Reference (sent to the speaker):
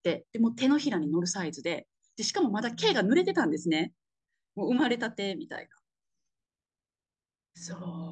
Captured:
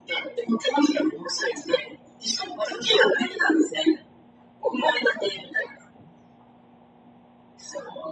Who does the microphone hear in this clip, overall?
echo only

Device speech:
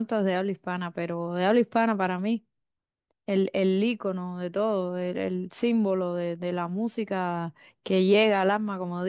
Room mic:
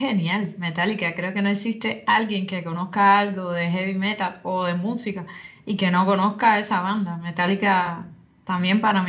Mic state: user only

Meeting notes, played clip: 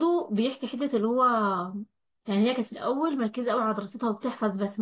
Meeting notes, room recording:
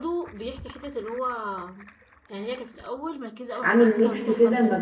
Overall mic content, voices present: both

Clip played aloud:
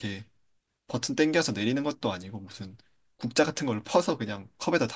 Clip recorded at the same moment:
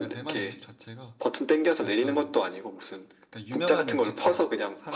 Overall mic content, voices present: both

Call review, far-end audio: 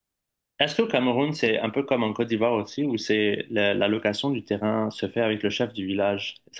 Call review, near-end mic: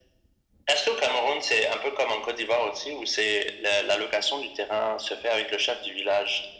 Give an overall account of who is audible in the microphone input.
echo only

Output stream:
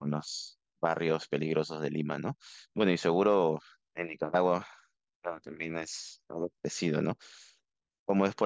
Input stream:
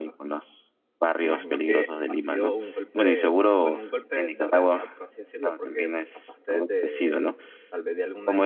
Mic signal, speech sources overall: both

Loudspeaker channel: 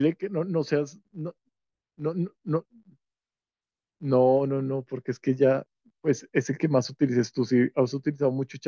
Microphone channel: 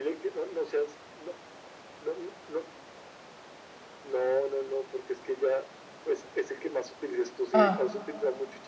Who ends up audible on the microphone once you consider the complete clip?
both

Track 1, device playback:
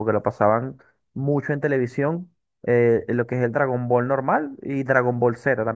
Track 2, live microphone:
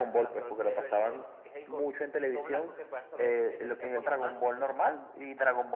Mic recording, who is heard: both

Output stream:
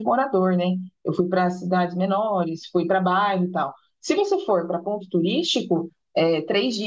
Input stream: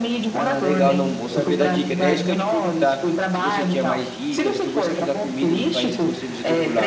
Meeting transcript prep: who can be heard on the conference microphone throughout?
both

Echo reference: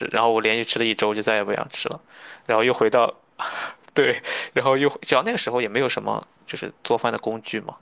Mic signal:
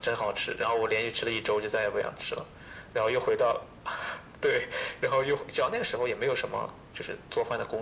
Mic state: echo only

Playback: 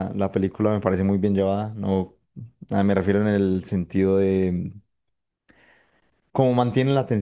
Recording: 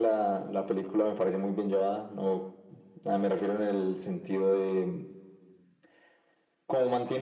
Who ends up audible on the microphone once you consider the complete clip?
echo only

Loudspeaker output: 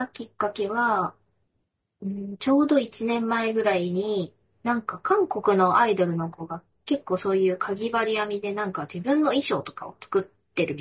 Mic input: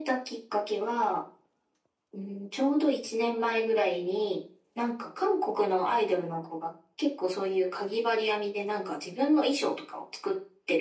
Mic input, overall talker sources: echo only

